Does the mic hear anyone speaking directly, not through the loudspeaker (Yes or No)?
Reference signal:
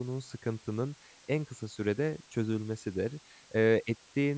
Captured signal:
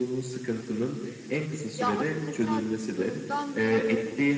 Yes